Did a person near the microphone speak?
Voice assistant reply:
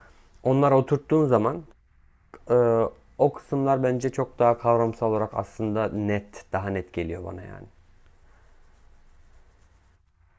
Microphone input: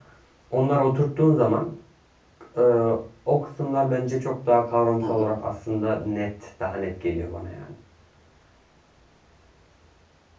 Yes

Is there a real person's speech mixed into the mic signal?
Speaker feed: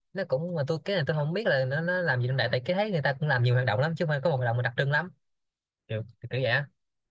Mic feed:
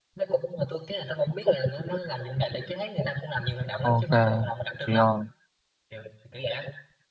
Yes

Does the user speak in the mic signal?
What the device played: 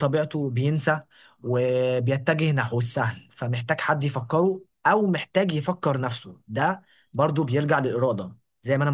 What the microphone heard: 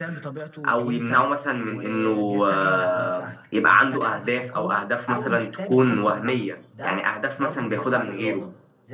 Yes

